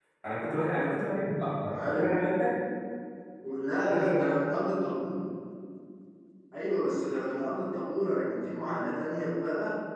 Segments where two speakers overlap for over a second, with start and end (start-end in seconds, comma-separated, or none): none